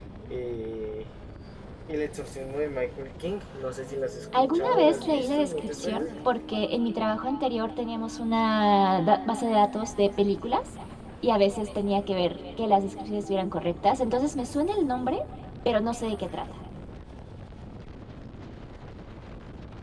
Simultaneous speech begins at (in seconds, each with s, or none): 4.3 s